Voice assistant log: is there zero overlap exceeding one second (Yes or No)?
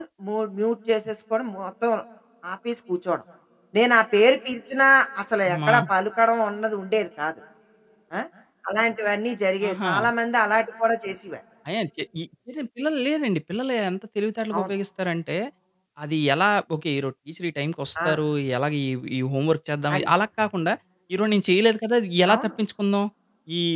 Yes